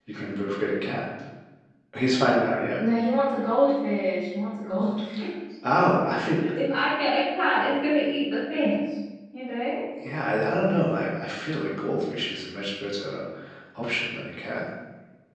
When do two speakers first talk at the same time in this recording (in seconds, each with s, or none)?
none